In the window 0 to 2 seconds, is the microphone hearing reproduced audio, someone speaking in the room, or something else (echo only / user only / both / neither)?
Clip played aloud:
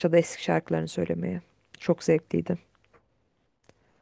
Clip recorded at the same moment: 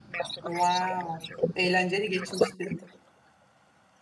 both